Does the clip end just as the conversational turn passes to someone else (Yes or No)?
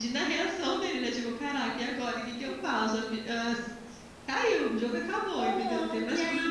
Yes